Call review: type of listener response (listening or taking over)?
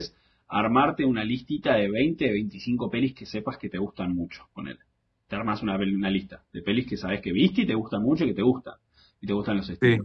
listening